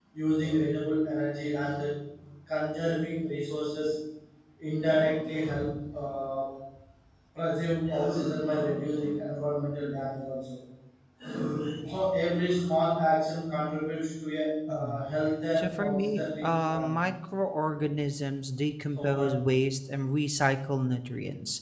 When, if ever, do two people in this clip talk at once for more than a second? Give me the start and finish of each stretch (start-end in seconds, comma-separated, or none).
15.6-17.0